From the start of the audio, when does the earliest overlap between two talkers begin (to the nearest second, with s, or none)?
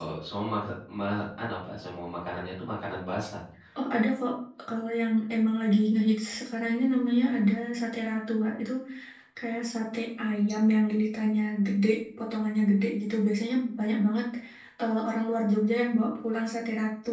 none